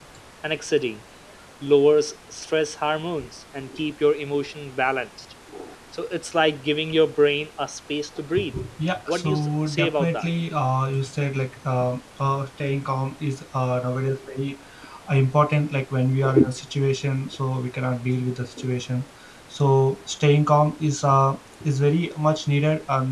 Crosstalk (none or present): present